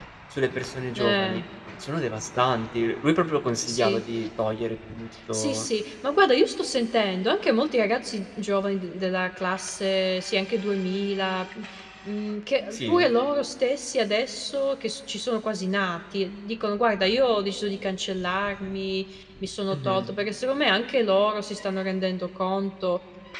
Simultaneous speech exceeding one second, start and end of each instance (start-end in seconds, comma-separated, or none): none